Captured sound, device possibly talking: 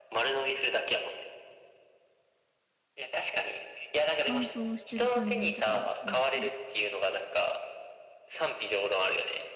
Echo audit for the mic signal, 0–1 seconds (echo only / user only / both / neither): echo only